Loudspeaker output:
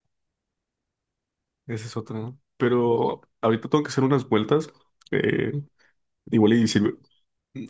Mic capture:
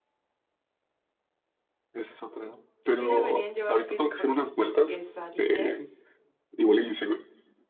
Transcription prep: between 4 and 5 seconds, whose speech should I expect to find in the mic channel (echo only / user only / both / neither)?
both